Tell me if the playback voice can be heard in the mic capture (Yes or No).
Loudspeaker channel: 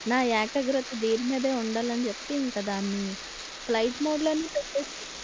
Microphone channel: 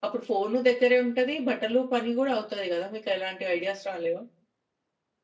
No